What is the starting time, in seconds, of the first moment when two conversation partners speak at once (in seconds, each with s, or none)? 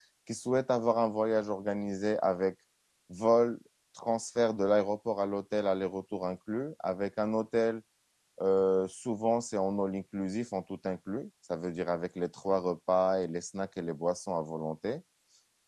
none